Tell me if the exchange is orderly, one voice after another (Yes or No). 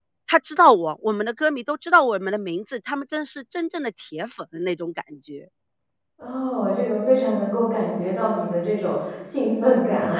Yes